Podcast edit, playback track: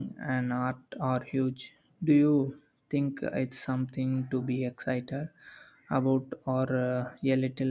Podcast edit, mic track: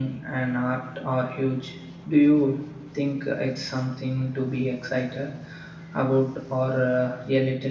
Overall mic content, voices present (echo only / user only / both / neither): echo only